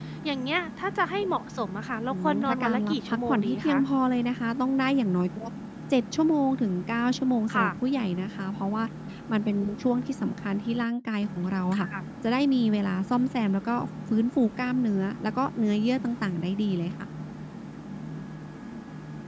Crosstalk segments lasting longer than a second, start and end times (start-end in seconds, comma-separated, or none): 2.1-3.8